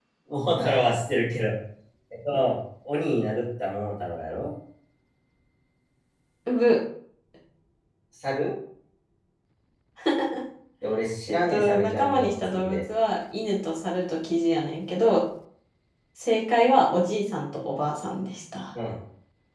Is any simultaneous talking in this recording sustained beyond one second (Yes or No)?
Yes